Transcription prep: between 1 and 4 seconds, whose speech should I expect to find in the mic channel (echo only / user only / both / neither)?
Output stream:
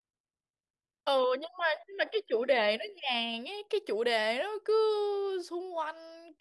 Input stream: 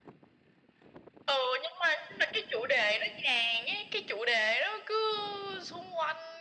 echo only